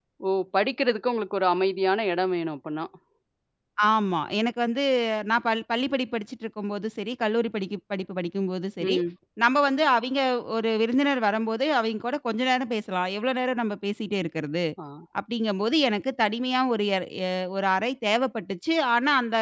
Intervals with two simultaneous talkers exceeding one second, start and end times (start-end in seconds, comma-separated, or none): none